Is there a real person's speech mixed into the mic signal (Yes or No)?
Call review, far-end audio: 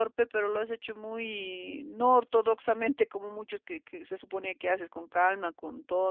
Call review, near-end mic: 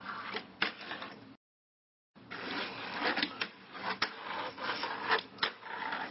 No